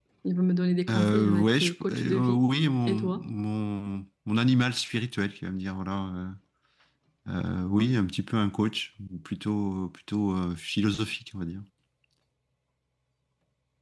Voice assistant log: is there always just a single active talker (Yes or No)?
No